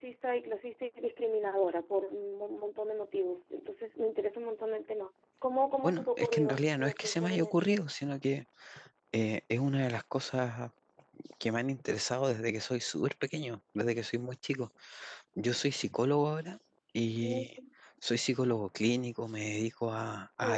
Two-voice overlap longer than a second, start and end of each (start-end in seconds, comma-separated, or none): 5.8-7.8